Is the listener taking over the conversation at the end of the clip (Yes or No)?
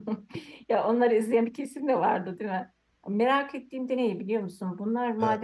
No